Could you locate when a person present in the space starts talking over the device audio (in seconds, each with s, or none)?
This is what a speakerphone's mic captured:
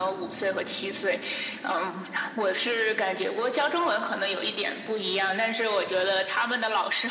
none